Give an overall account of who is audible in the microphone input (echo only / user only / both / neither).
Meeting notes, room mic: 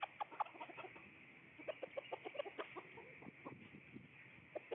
neither